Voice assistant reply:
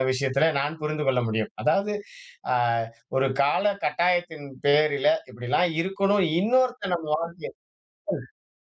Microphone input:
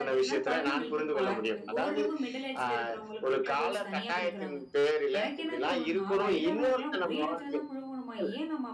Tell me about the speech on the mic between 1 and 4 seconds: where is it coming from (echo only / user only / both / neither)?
both